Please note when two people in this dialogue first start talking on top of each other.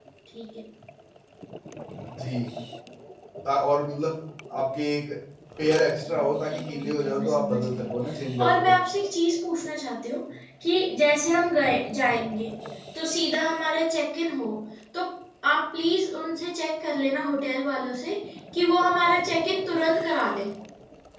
6 s

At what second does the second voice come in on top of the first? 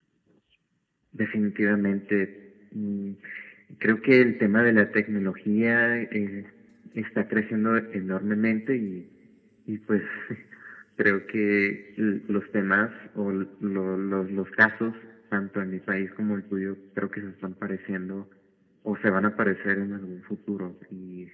none

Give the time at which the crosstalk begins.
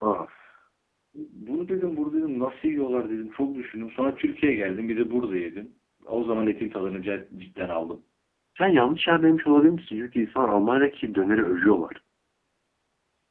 none

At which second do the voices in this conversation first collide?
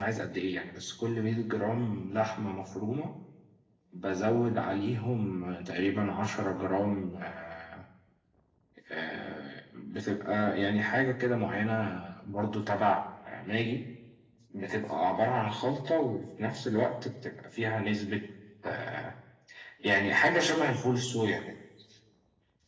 none

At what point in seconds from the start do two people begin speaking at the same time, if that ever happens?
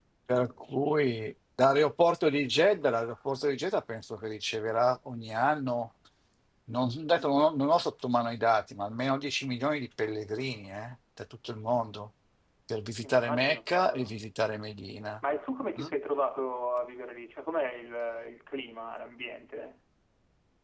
13 s

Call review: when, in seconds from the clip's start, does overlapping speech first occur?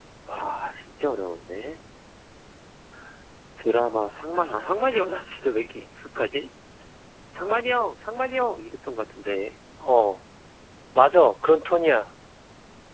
none

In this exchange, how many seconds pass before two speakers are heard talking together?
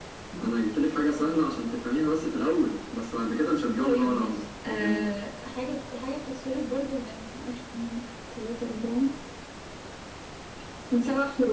4 s

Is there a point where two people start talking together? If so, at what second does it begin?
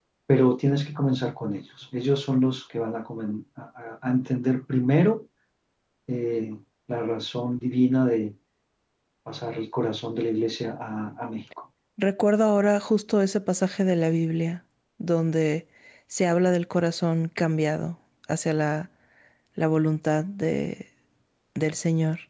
none

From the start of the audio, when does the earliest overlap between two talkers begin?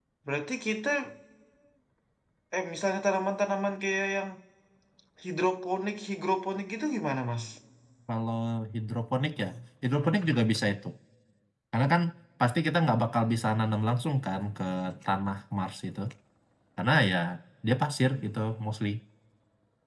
none

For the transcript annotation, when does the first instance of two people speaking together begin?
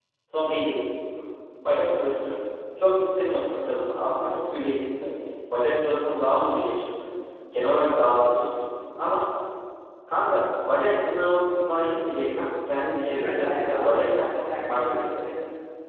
13 s

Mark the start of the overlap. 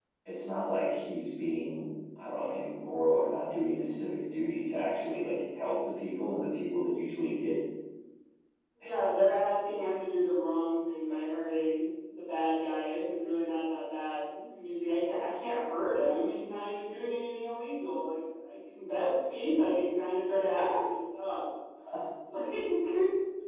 none

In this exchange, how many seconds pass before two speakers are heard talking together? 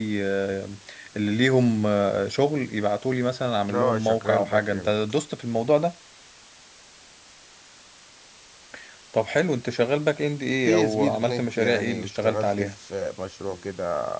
4 s

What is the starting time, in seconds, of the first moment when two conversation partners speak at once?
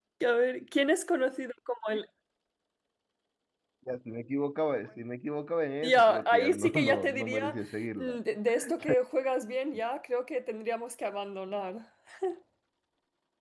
6 s

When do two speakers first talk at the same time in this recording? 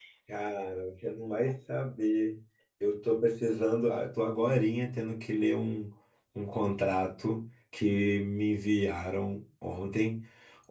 none

